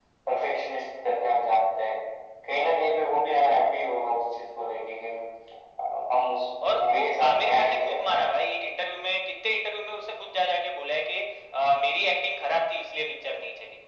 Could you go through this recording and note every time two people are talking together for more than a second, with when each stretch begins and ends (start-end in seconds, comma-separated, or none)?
6.7-8.2